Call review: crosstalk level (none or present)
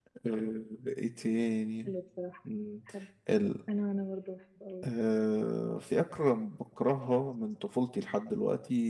none